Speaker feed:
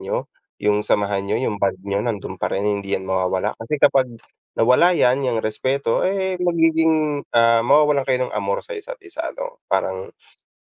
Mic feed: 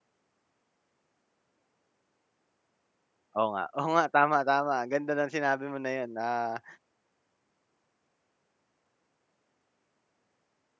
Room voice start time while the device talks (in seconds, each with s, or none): 3.4 s